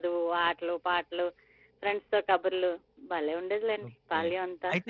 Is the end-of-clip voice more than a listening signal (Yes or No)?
Yes